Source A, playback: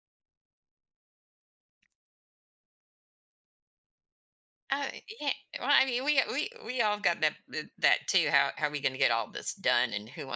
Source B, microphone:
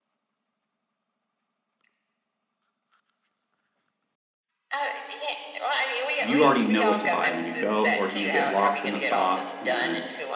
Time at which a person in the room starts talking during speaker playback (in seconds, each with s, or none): 6.2 s